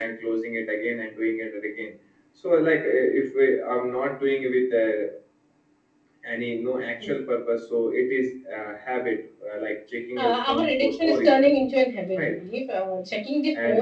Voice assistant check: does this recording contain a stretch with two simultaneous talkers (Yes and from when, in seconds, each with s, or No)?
Yes, from 10.2 s